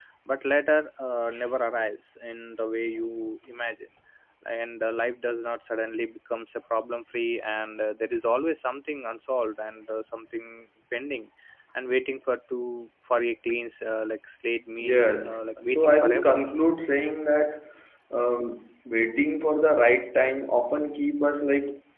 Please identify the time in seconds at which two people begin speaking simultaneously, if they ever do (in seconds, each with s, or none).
14.8 s